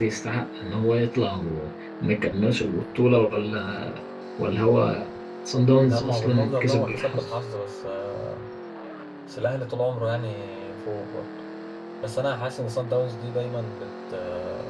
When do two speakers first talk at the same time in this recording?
5.8 s

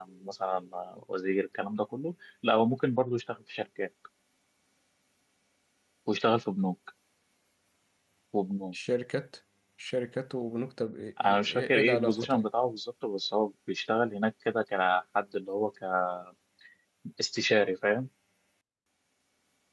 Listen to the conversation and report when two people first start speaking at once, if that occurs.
11.2 s

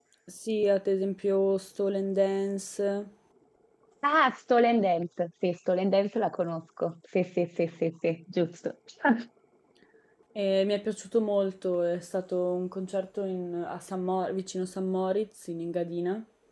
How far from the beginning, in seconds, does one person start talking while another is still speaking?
none

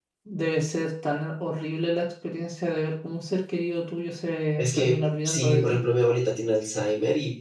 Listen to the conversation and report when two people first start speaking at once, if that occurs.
4.6 s

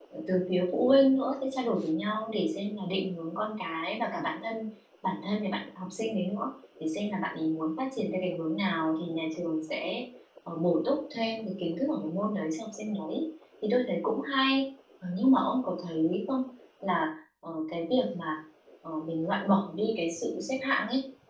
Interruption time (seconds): none

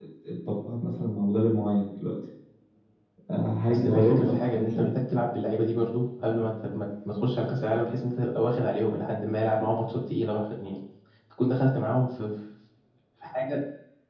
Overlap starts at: 3.7 s

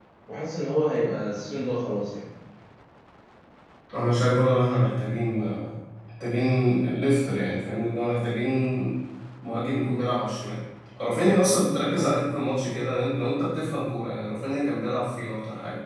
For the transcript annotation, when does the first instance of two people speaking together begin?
none

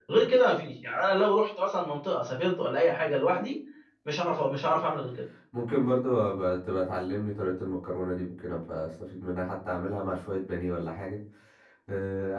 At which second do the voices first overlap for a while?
none

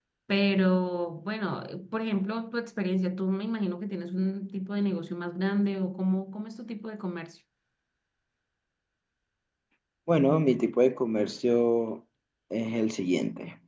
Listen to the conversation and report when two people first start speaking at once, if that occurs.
none

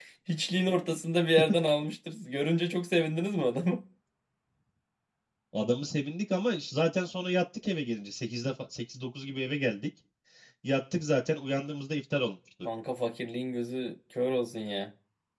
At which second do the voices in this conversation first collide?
none

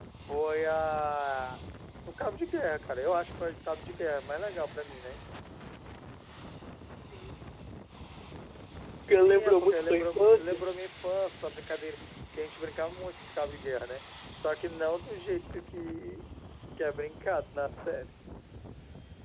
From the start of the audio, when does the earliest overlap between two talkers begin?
9.2 s

